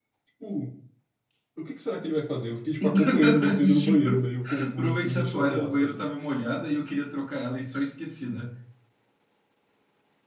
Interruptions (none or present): present